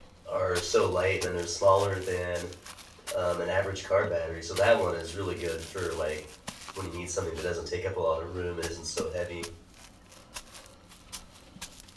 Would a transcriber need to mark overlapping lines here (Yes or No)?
No